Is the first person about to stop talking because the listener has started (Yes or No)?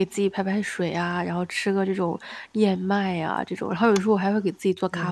Yes